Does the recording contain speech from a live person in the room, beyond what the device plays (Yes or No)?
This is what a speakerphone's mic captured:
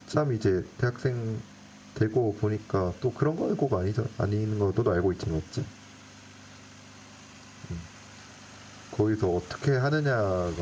Yes